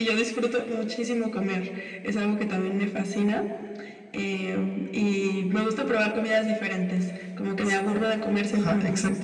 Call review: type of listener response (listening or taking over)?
taking over